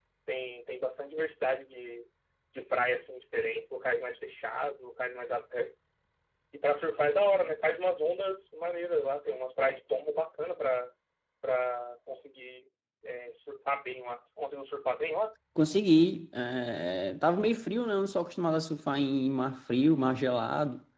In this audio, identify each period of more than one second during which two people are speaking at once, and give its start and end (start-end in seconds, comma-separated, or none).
none